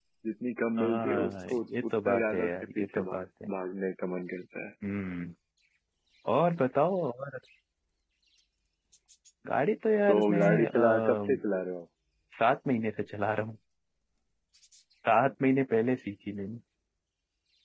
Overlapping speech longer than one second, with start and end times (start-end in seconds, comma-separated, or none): 0.8-3.5, 10.1-11.4